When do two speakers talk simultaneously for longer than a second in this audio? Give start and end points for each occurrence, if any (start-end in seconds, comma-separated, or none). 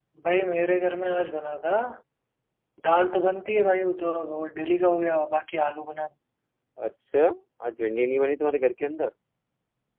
none